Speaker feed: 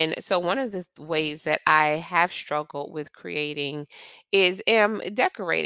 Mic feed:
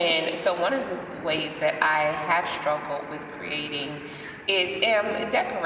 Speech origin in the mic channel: echo only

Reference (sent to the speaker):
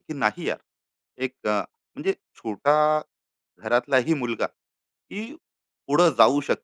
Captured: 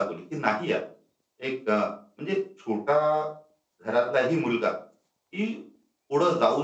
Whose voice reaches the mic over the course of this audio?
echo only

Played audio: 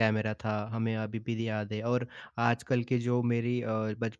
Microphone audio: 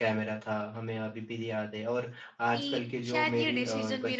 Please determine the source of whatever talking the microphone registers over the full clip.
both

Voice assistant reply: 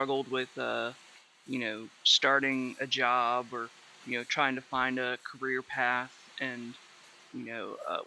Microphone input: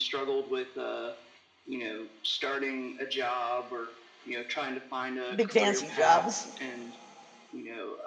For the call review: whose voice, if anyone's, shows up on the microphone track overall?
both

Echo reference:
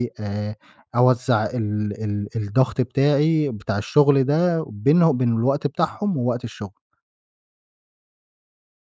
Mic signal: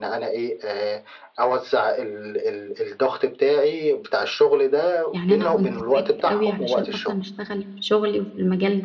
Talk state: both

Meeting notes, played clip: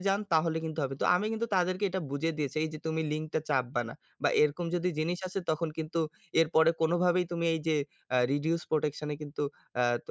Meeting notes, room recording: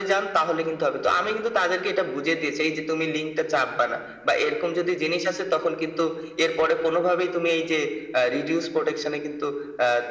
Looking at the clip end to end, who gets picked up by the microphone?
echo only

